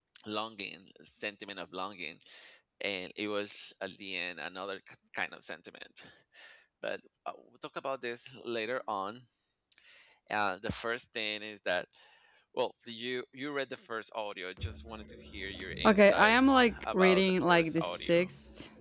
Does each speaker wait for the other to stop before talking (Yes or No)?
No